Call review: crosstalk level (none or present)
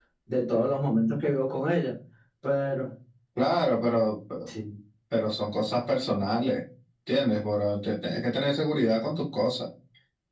none